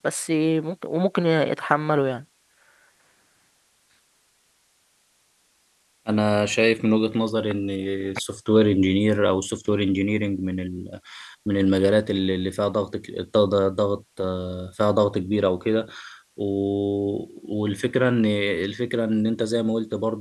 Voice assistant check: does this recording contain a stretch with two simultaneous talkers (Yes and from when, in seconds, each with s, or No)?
No